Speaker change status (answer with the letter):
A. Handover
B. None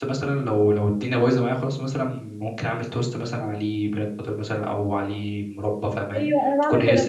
A